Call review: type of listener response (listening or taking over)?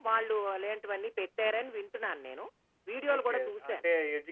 taking over